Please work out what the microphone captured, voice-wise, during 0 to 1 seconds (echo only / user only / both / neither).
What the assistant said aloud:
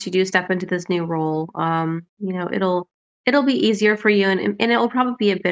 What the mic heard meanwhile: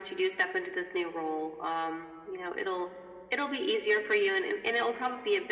echo only